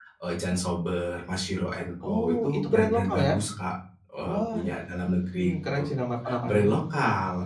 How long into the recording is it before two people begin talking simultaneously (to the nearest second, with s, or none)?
2 s